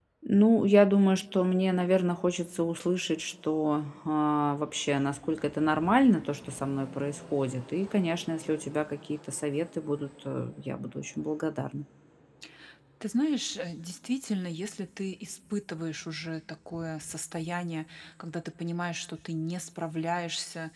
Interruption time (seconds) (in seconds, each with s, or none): none